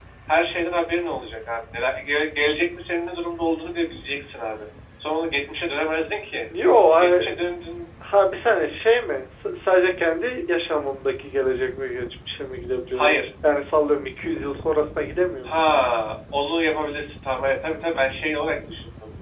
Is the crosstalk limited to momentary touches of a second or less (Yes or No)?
Yes